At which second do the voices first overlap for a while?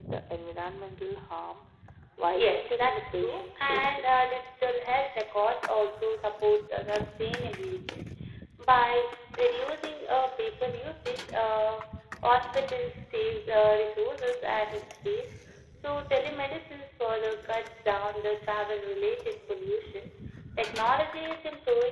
2 s

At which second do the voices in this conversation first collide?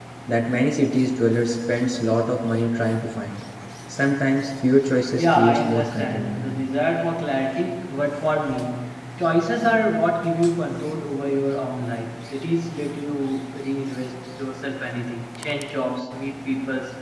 5 s

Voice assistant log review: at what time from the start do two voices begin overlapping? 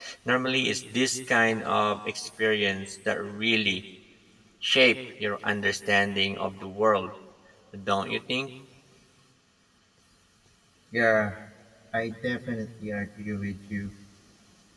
none

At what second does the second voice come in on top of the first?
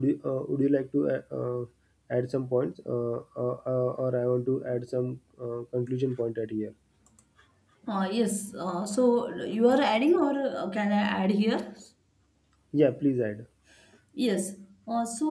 none

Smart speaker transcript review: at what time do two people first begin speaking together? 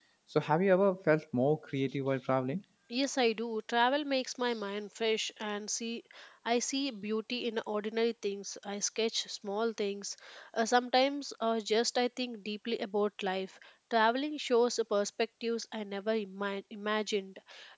none

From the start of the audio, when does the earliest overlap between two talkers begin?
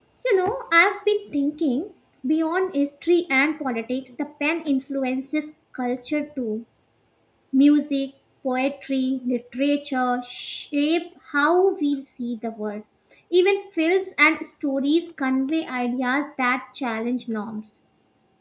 none

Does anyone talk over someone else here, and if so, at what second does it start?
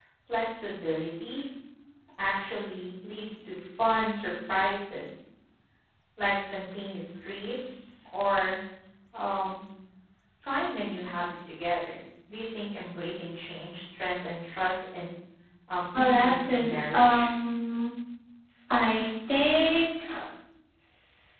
16 s

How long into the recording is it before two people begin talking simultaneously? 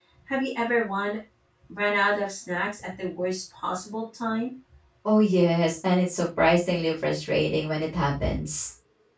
none

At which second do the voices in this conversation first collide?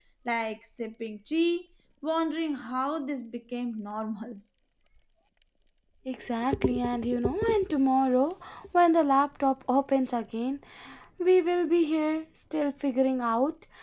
none

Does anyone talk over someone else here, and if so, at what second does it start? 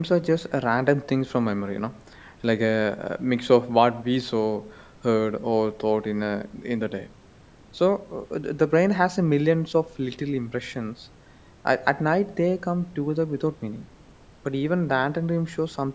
none

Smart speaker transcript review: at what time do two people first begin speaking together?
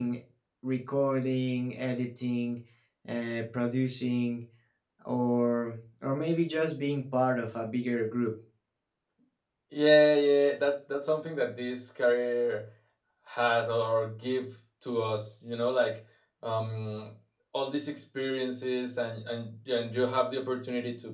none

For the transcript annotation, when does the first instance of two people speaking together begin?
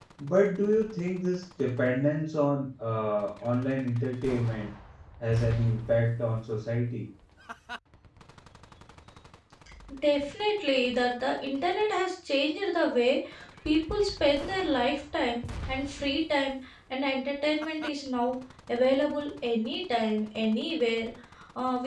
none

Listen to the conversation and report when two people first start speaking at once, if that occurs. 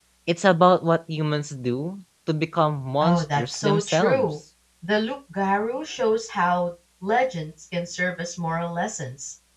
3 s

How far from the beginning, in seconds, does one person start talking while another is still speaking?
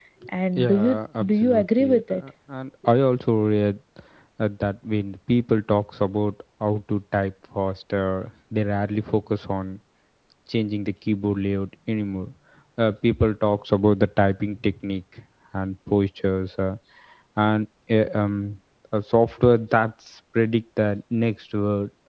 1 s

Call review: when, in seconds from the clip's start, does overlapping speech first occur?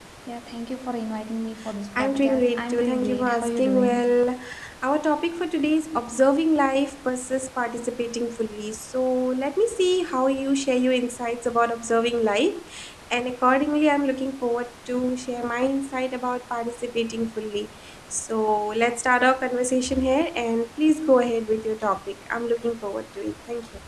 2 s

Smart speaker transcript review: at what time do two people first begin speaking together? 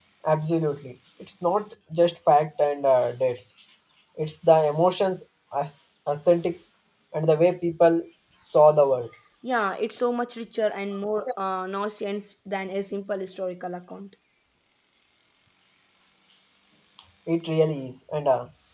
none

